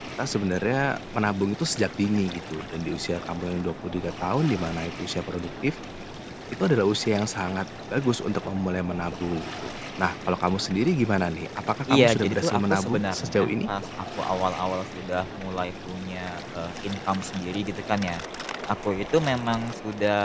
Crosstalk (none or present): present